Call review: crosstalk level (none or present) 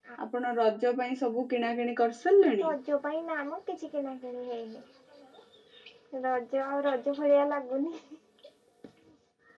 none